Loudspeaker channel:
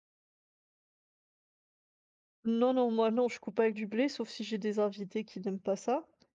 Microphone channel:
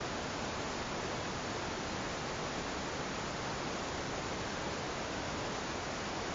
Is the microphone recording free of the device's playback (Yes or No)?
Yes